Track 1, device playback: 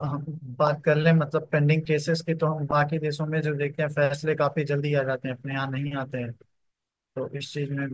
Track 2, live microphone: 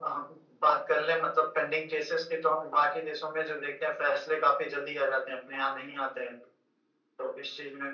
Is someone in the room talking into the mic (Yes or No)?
No